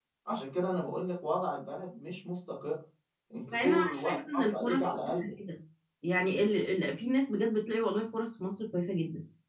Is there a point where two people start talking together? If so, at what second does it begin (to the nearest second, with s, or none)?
4 s